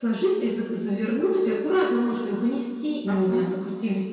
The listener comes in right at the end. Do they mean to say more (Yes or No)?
No